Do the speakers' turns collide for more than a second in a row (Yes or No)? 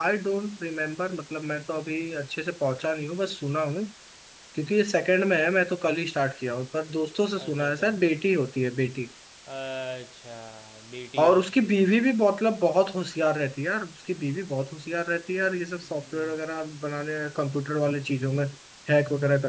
No